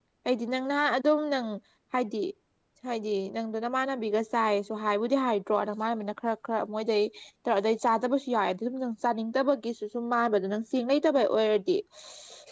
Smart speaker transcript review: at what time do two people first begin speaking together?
none

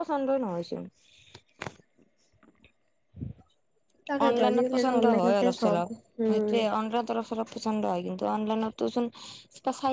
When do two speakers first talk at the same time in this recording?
4.3 s

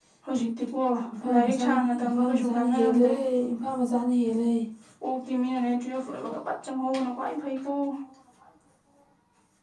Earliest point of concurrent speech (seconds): 1.3 s

